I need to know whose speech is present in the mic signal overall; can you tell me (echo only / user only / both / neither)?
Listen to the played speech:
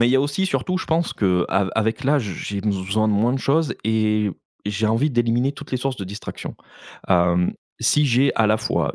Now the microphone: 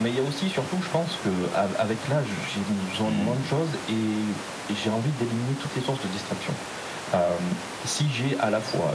both